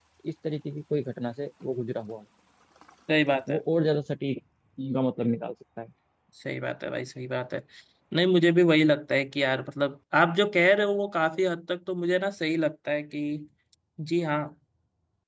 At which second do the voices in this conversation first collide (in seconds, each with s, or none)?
none